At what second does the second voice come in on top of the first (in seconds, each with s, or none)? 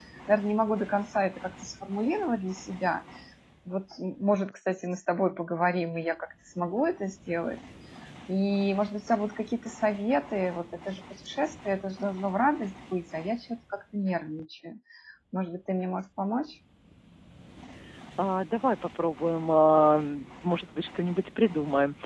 none